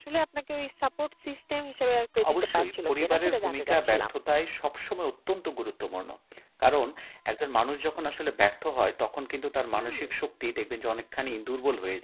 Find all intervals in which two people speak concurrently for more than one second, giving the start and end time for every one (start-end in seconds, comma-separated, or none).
2.3-4.1